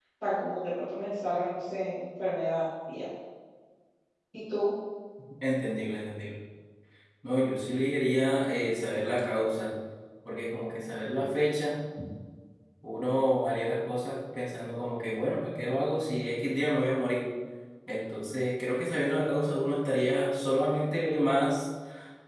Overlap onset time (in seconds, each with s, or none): none